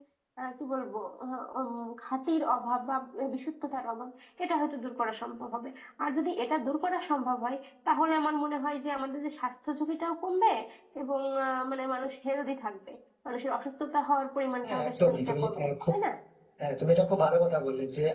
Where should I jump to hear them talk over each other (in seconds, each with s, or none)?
14.6 s